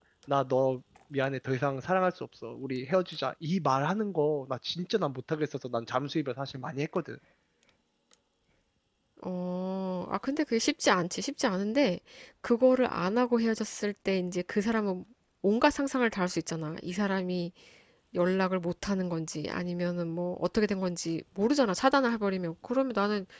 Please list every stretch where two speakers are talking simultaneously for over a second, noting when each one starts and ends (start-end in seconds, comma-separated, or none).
none